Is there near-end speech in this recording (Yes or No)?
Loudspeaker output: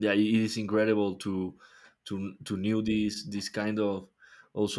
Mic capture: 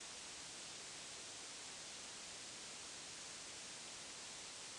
No